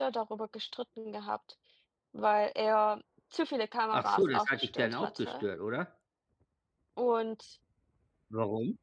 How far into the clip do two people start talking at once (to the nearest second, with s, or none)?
4 s